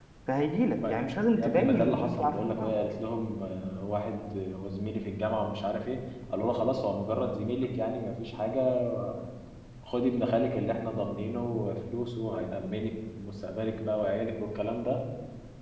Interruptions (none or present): present